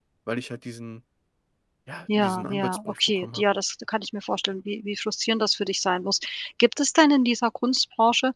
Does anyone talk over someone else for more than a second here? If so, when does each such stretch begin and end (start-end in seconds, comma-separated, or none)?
2.1-3.4